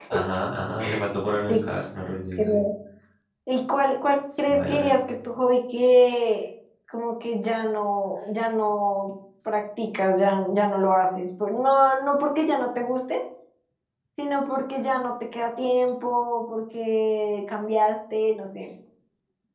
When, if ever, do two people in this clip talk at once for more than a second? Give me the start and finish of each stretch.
none

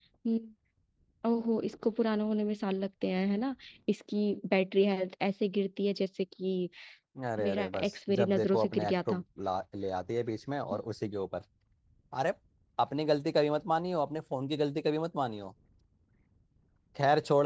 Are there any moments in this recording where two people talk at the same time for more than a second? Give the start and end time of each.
7.4-9.2

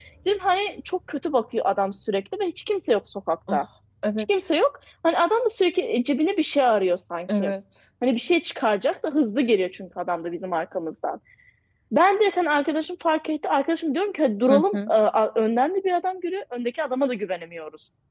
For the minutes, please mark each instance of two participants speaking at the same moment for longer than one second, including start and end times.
none

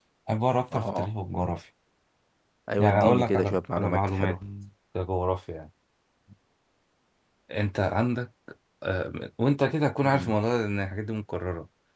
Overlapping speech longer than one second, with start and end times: 2.8-4.4

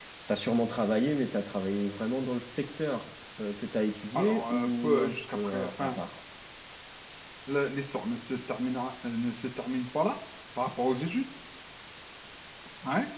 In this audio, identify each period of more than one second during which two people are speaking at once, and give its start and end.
4.1-6.0

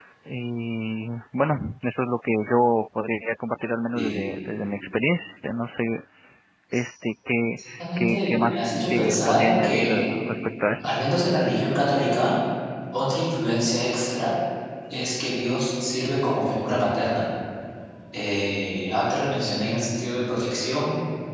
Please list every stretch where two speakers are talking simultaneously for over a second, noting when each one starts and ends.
7.7-10.1

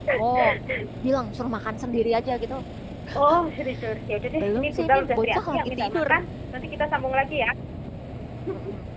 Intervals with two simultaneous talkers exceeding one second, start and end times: 4.4-6.0

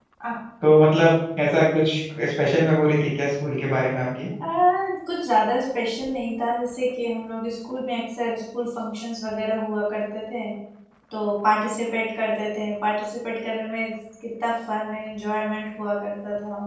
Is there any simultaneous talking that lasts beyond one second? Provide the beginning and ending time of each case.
none

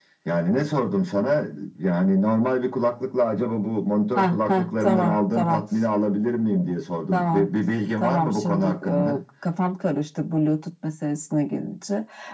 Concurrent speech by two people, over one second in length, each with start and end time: 4.2-5.6, 8.0-9.2

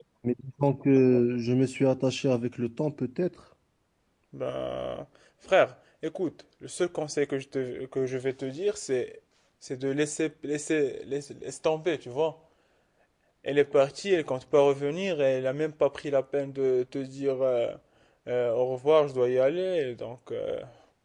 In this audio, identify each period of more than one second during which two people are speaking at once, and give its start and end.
none

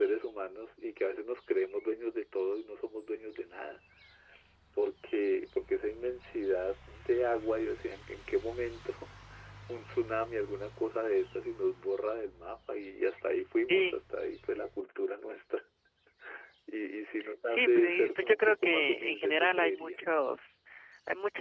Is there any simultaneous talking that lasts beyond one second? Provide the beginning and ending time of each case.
17.5-19.9

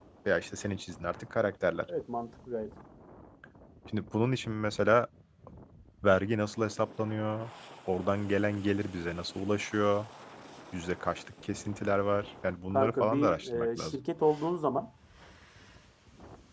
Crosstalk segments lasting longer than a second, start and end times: 12.7-14.0

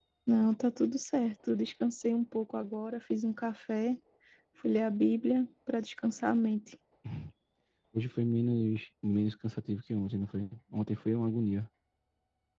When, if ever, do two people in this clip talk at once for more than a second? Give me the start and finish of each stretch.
none

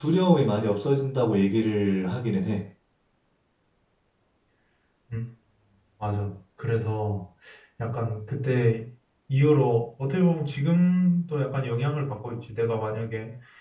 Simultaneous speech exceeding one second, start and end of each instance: none

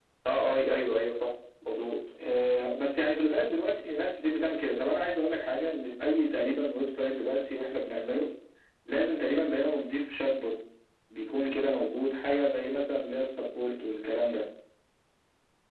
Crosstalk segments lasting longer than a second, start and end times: none

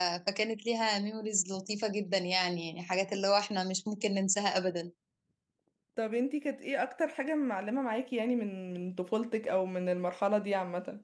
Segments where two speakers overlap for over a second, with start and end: none

